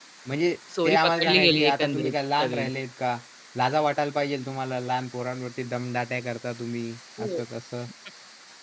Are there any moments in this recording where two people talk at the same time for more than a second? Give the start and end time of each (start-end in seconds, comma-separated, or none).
0.8-2.6